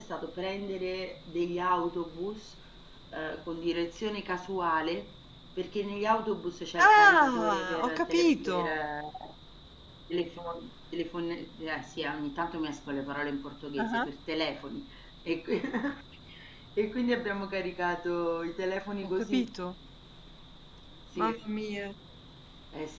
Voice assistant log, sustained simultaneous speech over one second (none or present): present